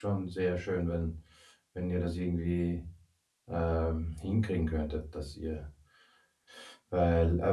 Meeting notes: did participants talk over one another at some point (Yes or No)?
No